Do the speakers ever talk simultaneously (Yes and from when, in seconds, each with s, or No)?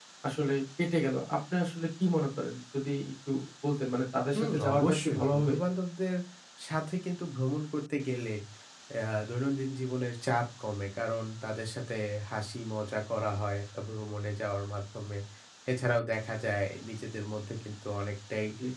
Yes, from 4.3 s